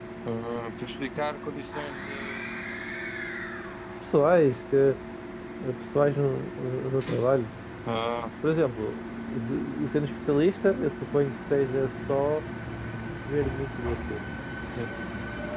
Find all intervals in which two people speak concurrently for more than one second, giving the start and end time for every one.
none

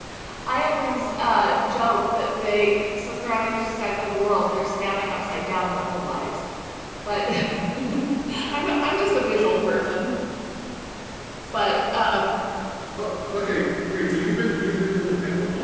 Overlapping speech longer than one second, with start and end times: none

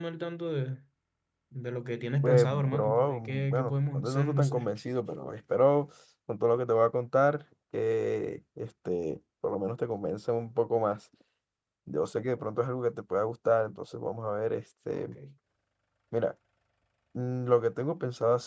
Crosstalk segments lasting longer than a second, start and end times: 2.2-4.7

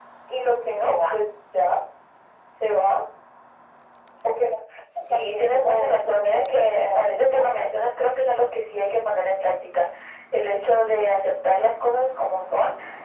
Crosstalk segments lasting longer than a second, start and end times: 5.0-7.7

